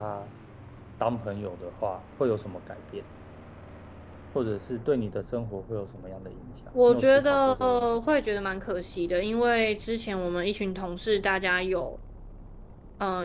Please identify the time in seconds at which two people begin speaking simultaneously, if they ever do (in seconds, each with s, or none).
6.7 s